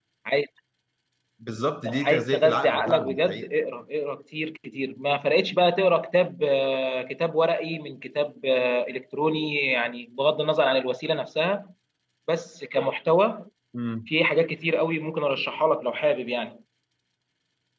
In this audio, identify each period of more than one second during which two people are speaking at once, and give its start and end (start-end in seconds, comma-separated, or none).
1.8-3.5